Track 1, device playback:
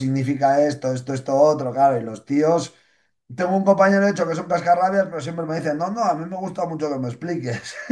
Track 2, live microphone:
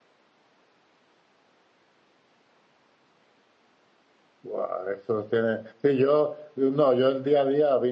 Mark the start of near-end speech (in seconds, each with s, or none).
4.4 s